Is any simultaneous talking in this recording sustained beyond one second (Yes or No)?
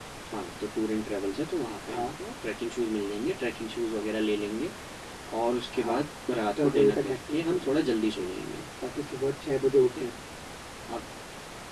Yes